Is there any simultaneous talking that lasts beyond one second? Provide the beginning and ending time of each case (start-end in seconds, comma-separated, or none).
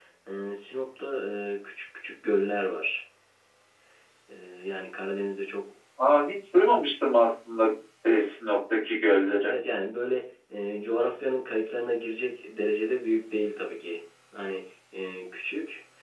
none